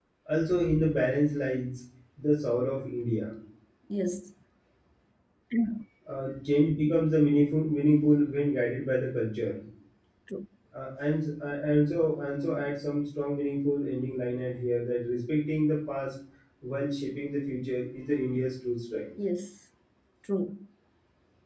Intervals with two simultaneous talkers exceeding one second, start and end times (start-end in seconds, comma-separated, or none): none